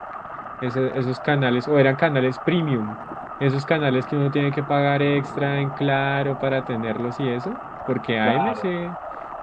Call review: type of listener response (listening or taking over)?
listening